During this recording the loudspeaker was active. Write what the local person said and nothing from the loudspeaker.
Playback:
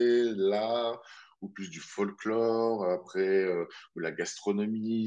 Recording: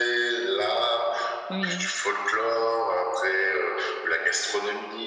Oui.

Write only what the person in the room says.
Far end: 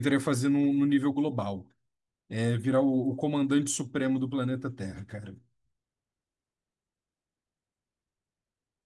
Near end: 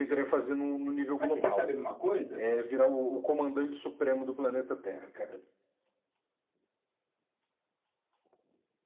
Mas você quer saber de uma coisa?

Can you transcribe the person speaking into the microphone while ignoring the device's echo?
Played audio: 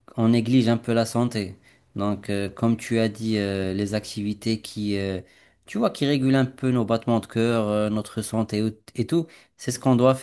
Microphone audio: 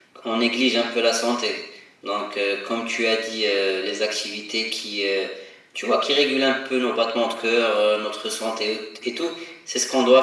none

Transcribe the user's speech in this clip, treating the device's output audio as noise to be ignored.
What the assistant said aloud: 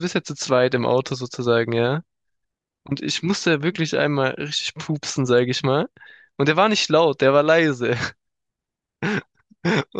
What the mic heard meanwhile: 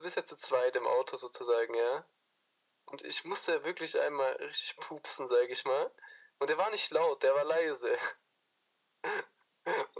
none

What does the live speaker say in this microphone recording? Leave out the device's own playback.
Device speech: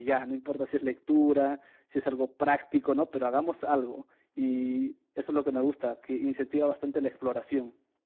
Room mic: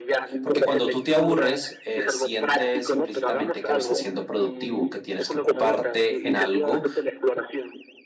Porque cuando tú te aburres, eh, sientes implícitamente que no estás siendo productivo, que tienes que ocuparte en algo

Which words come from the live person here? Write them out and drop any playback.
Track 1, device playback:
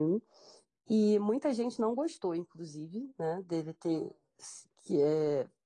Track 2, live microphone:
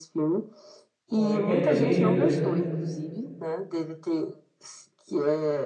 Coringa Delírio dois né?

